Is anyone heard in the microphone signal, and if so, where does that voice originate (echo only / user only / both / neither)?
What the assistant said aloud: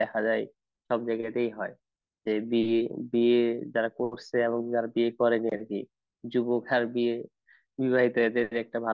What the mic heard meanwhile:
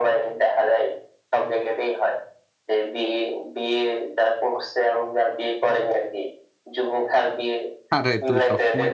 both